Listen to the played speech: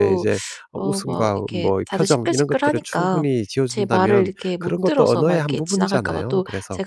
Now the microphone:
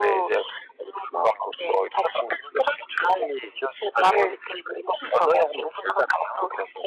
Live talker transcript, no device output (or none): none